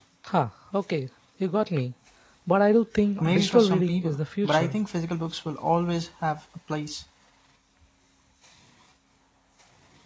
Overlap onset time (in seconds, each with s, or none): 3.2 s